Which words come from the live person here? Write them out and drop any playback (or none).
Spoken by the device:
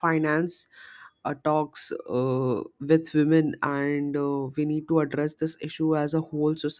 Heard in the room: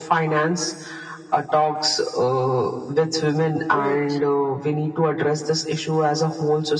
Right.